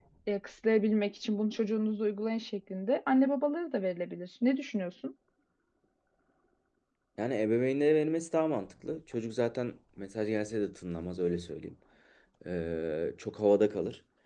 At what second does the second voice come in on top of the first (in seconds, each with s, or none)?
none